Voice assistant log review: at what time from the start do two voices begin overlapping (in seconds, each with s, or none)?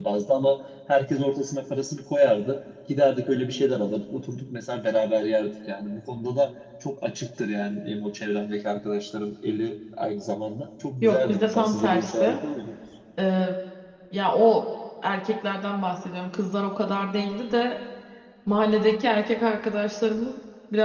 11.0 s